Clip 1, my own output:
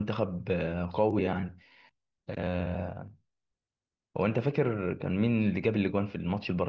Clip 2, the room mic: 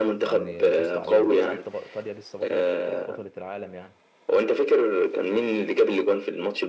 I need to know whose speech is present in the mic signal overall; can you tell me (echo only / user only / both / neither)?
both